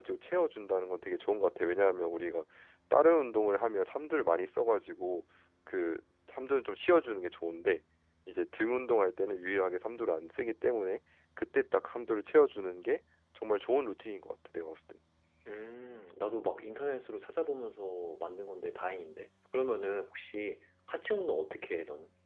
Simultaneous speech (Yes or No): No